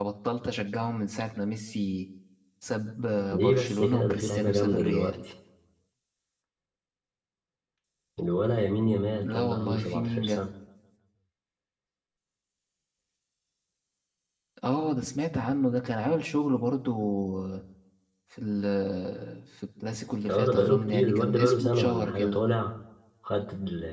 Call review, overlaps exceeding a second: present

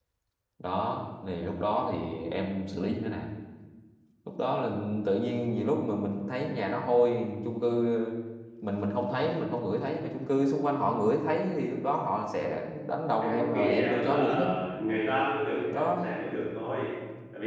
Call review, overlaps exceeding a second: present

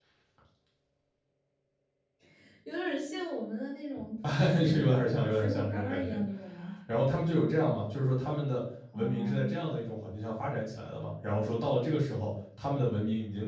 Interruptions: present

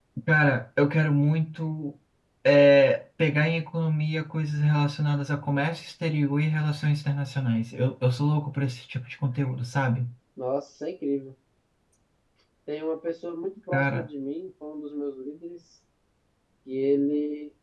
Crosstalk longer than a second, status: none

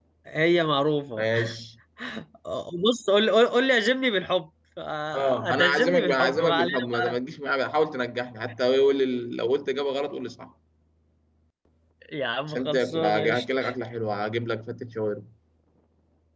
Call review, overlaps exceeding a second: present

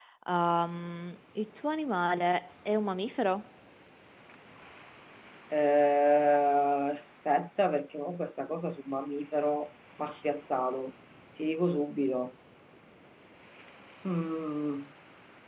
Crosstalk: none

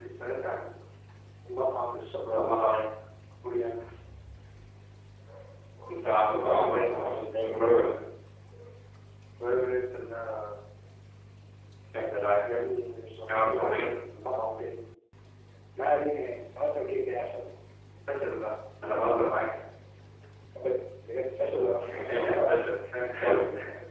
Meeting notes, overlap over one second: present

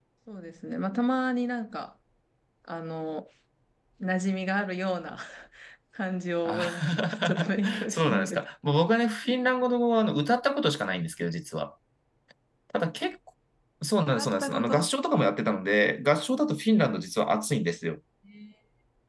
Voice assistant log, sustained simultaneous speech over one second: present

